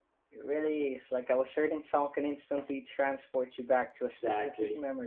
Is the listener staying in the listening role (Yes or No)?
No